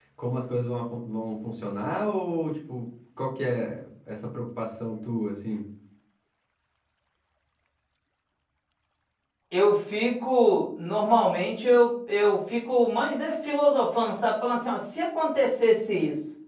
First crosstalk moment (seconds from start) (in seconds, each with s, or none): none